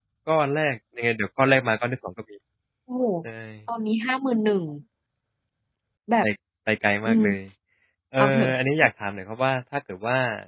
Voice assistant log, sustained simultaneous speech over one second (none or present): none